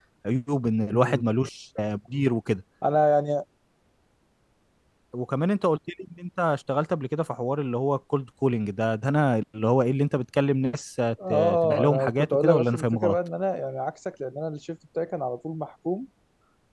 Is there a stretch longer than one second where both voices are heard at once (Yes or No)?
Yes